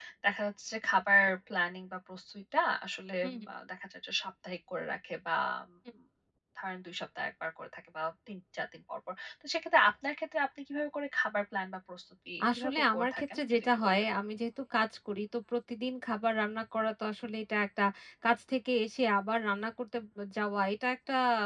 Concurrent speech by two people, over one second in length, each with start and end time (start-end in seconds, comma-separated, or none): 12.5-13.9